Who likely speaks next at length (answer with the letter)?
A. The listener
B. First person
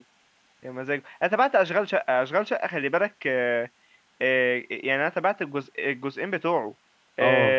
B